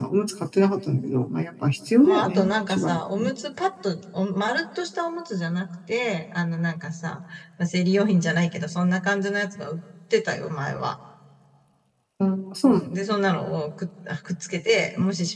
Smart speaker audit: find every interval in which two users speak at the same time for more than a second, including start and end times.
2.0-3.3

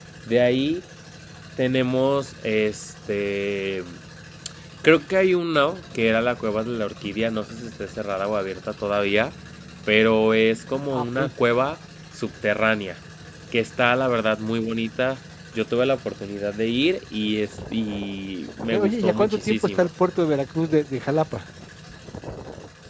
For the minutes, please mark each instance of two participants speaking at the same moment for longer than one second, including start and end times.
18.6-19.9

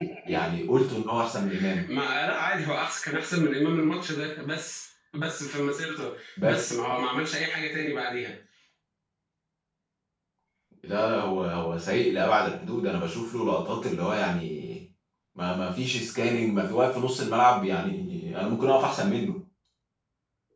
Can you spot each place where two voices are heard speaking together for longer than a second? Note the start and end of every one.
none

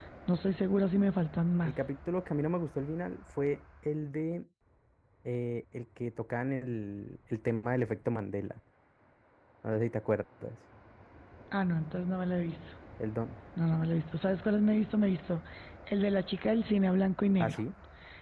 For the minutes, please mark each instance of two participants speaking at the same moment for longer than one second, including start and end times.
none

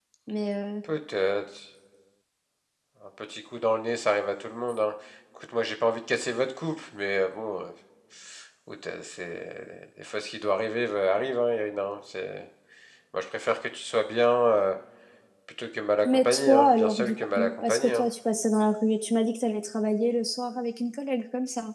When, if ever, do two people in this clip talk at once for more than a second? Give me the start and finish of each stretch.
16.1-18.1

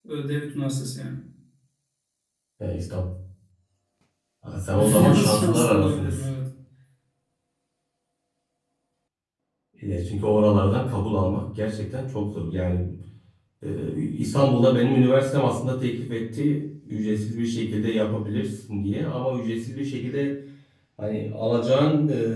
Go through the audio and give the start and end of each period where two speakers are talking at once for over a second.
4.7-6.2

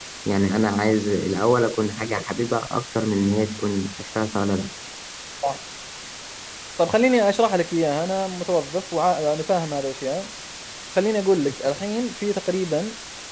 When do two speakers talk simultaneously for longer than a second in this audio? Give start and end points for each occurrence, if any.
none

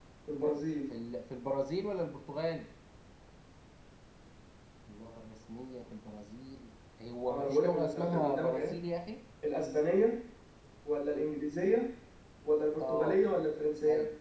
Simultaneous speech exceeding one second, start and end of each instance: 7.3-8.7

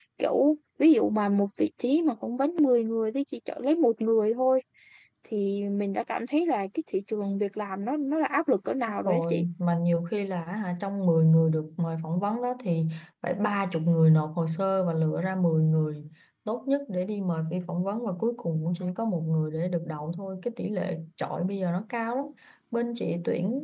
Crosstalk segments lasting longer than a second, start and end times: none

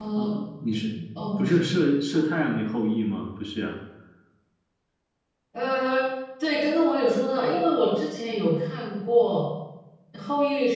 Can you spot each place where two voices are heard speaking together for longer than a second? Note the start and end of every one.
none

